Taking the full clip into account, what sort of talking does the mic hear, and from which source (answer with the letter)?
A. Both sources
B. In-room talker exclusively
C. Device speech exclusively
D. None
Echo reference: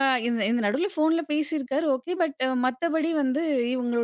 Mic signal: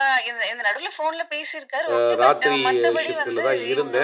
A